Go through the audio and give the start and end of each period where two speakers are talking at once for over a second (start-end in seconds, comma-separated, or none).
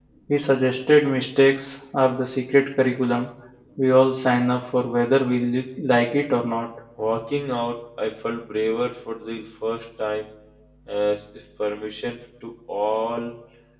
none